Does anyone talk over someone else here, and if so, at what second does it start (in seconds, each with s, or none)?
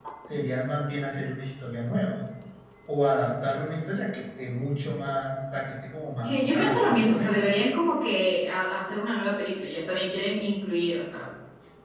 6.2 s